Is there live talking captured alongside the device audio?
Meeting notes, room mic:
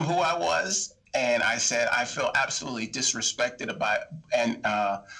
No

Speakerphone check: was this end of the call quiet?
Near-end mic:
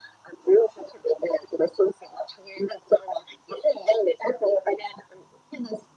Yes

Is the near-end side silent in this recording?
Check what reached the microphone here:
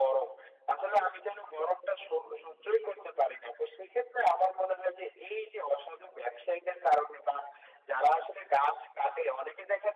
Yes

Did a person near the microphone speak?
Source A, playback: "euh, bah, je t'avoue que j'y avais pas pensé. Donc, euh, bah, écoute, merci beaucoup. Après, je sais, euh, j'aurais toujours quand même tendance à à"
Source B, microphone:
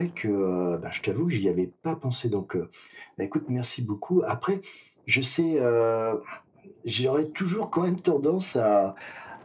No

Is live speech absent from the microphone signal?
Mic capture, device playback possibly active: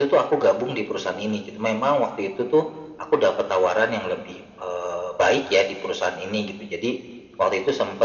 Yes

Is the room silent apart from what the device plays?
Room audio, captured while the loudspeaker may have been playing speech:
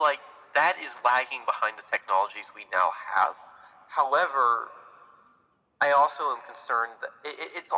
Yes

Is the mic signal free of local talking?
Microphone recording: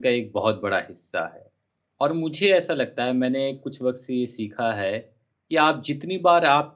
No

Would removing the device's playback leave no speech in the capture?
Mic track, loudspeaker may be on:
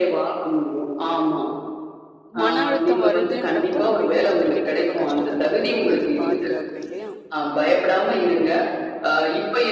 No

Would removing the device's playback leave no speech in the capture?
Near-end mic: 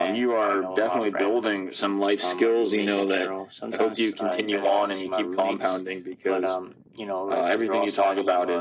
Yes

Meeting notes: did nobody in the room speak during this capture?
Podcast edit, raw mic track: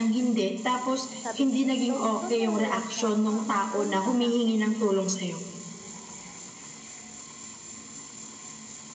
No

